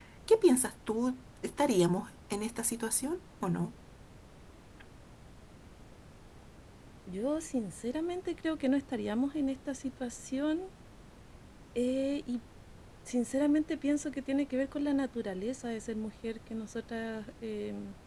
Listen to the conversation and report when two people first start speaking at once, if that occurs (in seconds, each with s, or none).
none